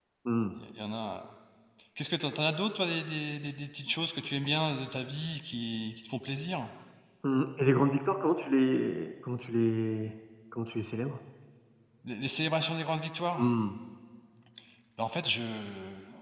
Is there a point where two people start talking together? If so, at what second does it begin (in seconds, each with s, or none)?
none